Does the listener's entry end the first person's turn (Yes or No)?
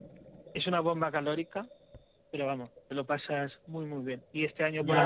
Yes